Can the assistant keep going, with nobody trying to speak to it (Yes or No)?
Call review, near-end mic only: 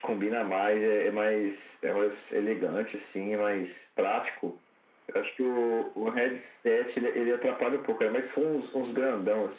Yes